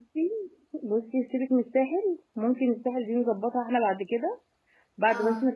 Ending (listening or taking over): listening